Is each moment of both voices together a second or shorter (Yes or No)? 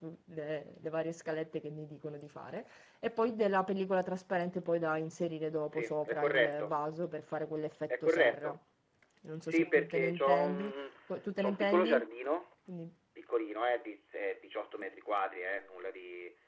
No